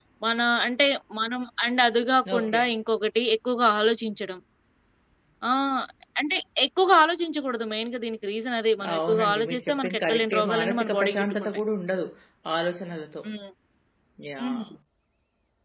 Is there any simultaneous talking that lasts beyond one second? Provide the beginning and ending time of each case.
8.9-11.6

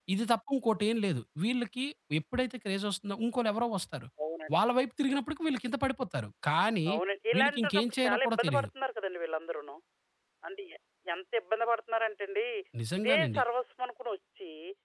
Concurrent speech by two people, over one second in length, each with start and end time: 7.4-8.7

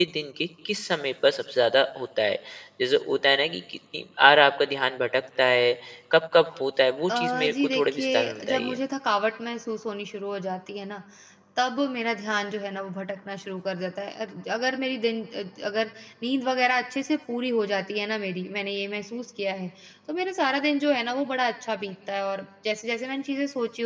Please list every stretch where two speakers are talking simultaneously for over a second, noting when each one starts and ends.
7.2-8.8

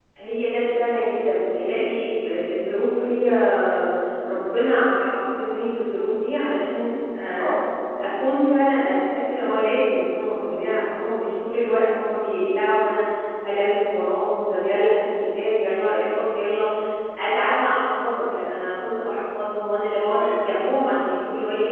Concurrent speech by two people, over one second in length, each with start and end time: none

